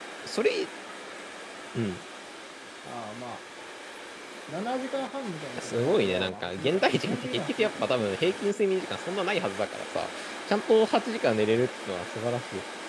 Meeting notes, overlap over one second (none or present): present